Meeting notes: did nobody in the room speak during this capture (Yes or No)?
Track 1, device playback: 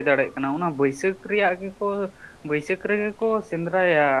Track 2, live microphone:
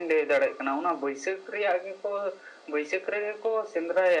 Yes